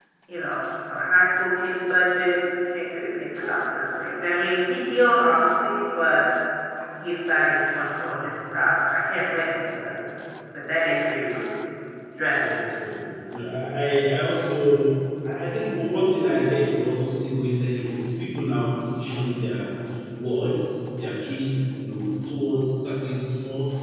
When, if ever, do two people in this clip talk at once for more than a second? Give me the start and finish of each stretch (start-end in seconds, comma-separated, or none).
none